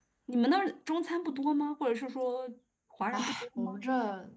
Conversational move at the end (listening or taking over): taking over